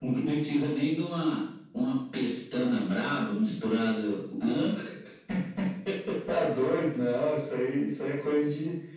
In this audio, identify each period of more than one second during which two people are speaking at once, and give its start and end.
none

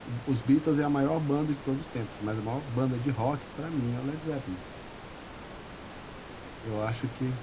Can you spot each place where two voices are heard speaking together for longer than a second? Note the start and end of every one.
none

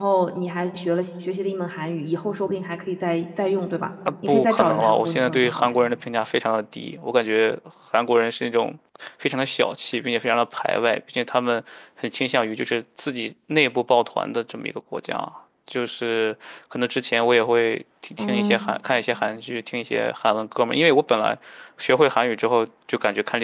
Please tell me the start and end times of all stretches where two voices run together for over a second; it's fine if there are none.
4.3-5.7

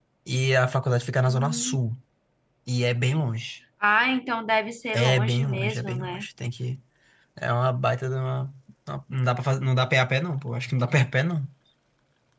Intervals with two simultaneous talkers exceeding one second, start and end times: 4.9-6.3

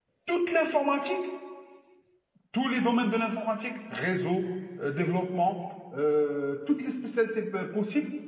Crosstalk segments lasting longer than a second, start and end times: none

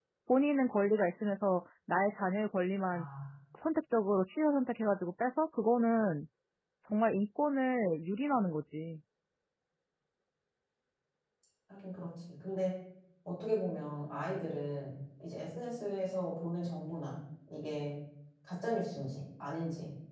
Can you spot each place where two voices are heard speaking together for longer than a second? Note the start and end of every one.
none

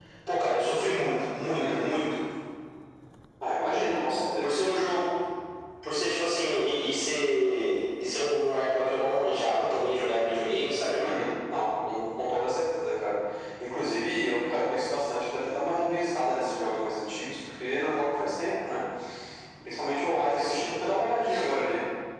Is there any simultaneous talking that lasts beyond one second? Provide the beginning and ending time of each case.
none

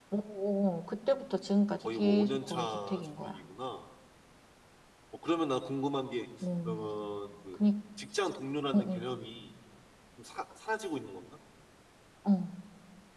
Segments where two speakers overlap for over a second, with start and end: 1.8-3.4

